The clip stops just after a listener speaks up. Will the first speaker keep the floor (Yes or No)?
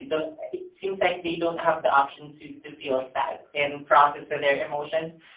Yes